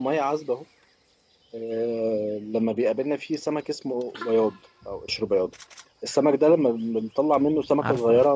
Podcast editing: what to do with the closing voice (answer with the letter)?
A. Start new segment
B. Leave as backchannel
B